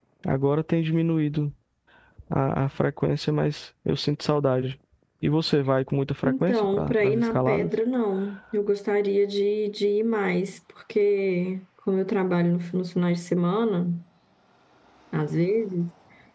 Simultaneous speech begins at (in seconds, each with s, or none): 6.2 s